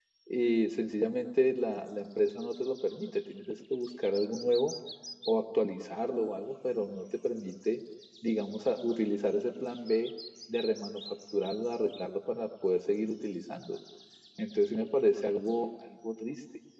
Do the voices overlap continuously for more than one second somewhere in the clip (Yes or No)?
No